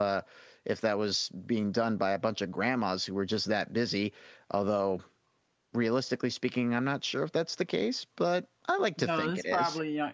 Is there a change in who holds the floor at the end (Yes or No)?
Yes